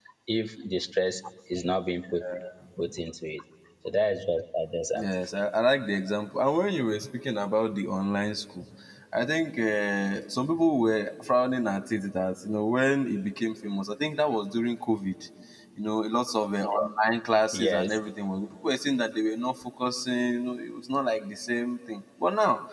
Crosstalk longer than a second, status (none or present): none